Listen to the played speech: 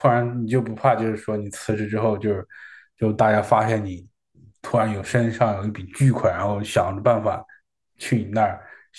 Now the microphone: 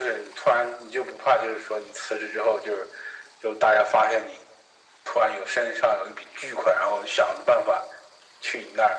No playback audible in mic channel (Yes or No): No